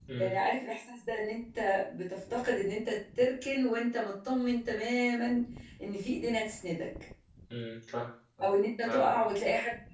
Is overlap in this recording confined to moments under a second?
Yes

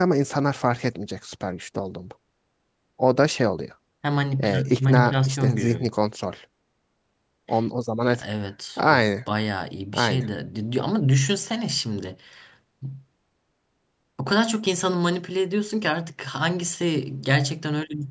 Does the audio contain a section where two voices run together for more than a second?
Yes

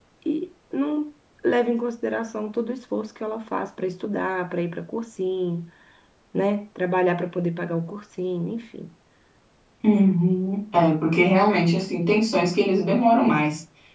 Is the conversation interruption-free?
Yes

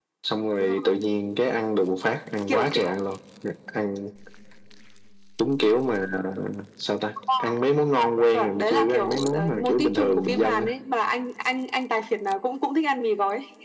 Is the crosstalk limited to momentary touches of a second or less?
No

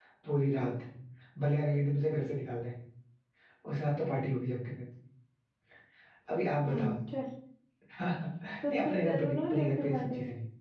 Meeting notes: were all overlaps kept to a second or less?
No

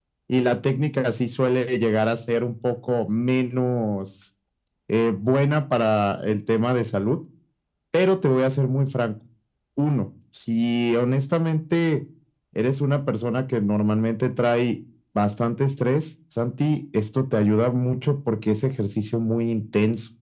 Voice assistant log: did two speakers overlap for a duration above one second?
No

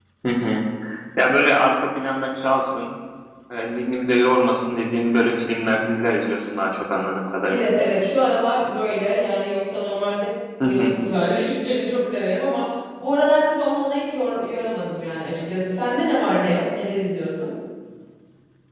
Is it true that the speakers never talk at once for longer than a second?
Yes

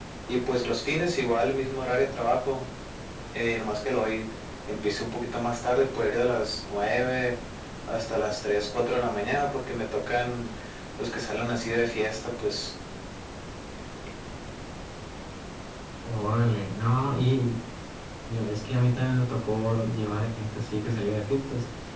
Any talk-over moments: No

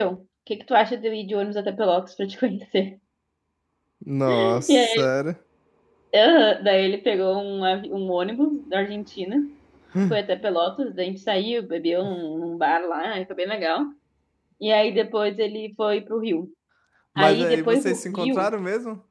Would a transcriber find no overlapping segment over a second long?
No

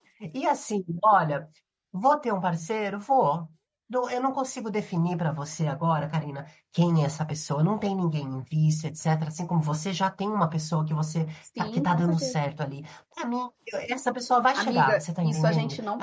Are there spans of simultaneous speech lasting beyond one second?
Yes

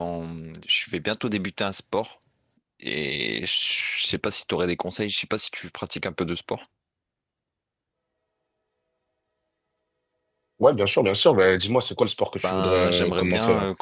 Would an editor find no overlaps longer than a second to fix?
No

